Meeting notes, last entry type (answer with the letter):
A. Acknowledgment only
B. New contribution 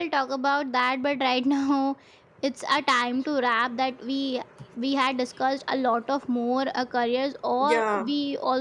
A